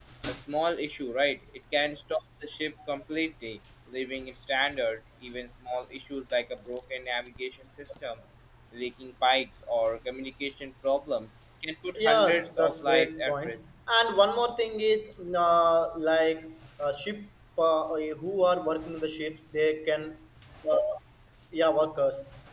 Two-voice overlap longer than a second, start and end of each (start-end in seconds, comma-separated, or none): 11.9-13.6